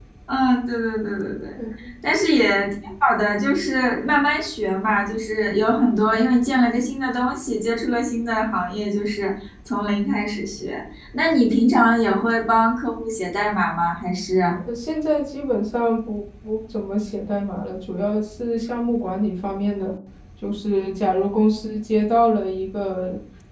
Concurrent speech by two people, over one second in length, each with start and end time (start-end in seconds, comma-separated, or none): none